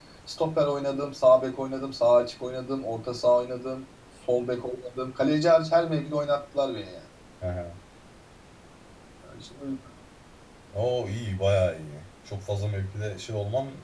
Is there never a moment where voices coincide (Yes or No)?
Yes